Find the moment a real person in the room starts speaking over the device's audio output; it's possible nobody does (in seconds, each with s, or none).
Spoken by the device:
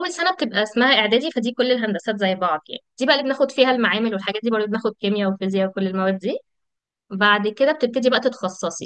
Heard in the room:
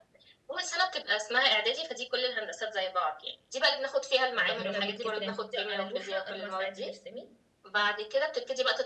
4.3 s